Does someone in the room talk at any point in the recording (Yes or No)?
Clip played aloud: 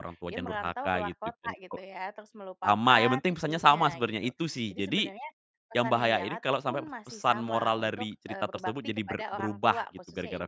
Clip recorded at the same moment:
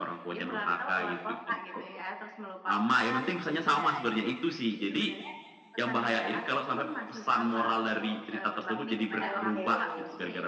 Yes